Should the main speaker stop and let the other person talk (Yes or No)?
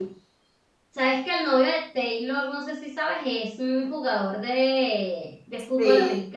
No